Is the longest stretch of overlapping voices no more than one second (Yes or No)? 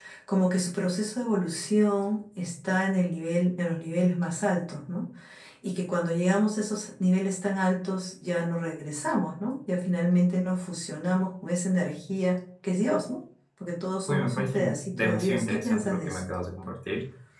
No